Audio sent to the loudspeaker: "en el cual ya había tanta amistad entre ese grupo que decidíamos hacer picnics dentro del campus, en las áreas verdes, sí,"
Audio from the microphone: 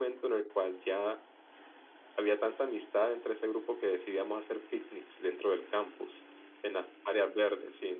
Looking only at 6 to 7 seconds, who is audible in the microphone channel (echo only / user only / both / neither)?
echo only